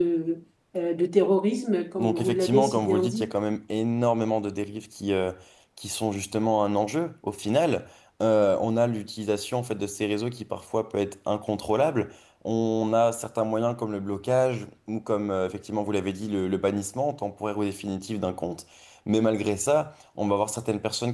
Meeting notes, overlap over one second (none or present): present